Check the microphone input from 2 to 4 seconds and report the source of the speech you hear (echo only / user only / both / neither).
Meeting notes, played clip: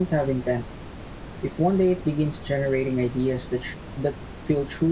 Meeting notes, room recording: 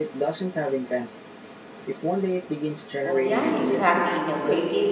both